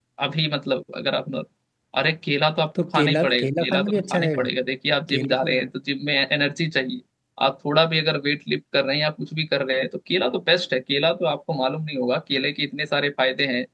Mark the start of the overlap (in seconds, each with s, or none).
2.8 s